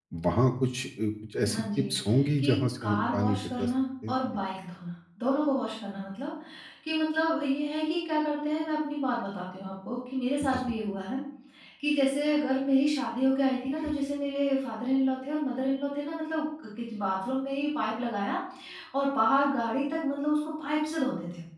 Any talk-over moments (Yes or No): Yes